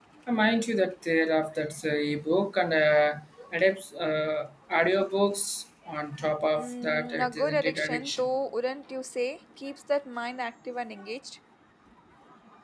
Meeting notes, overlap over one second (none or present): present